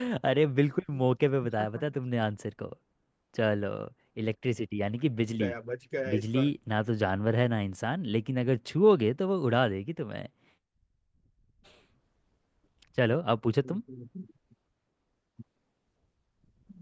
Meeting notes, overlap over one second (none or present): none